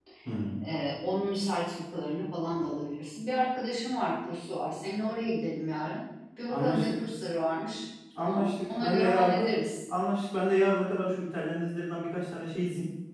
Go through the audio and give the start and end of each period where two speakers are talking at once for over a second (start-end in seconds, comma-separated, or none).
8.2-9.4